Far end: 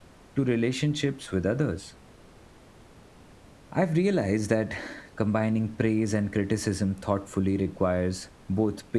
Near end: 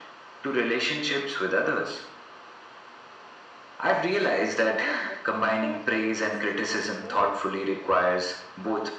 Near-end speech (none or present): present